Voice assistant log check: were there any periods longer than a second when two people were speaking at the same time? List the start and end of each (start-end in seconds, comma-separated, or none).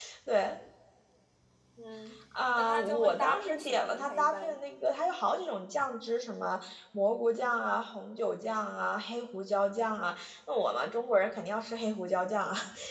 2.6-4.6